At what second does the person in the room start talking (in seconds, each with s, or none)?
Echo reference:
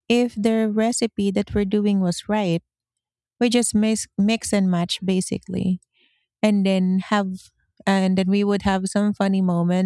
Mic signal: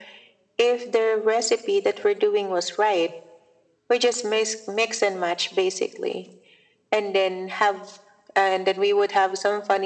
none